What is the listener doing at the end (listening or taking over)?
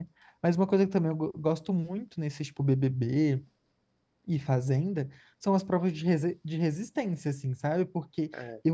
listening